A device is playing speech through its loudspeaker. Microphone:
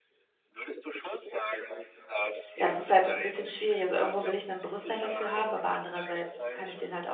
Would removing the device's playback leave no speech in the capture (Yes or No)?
No